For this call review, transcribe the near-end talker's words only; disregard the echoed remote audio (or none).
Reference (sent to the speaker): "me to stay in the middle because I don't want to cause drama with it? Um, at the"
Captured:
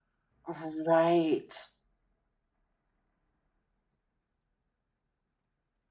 Right.